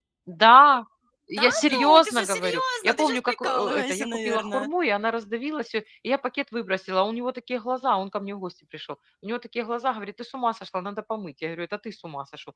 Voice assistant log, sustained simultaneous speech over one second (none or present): present